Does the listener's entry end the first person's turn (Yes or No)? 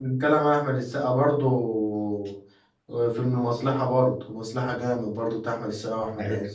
Yes